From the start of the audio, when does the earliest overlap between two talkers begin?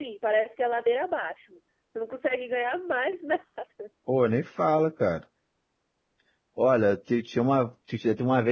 none

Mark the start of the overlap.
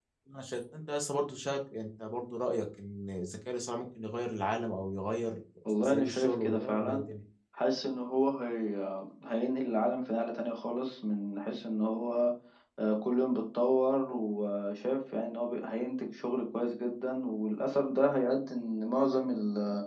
5.8 s

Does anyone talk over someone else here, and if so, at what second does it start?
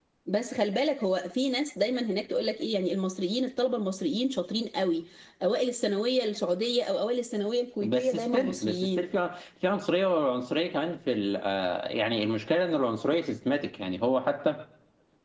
7.8 s

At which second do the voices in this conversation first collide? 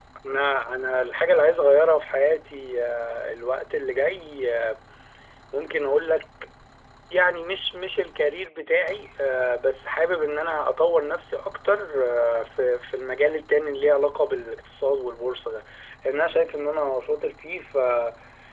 none

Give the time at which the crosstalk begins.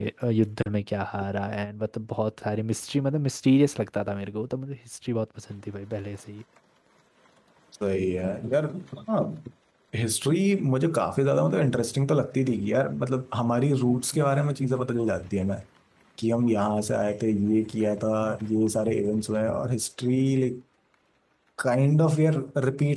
none

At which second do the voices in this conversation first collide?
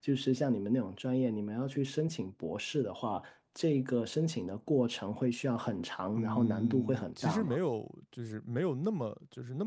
6.2 s

